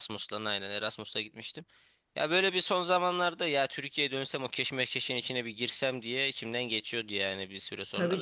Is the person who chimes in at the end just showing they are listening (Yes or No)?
No